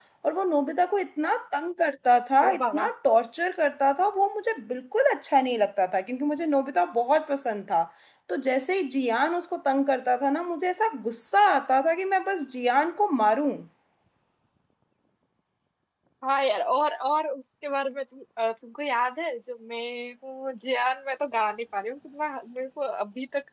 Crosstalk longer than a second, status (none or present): none